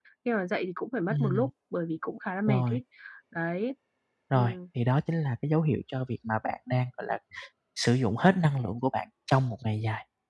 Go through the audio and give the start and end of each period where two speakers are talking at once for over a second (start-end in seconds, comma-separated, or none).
none